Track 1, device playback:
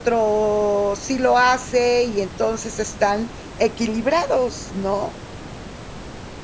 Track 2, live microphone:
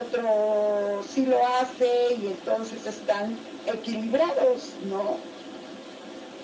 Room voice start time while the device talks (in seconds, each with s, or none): none